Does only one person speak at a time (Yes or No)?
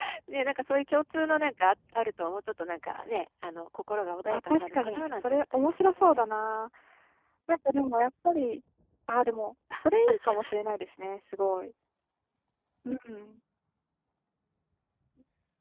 No